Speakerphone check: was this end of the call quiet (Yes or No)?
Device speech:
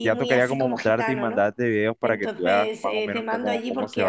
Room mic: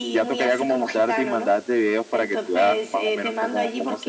Yes